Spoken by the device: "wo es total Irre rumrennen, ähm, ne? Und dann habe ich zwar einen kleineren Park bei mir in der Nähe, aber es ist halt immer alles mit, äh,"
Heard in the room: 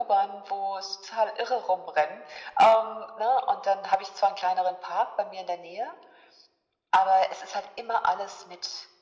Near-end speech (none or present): none